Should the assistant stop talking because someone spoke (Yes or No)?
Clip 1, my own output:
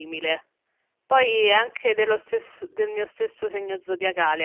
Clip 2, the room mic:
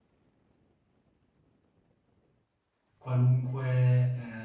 Yes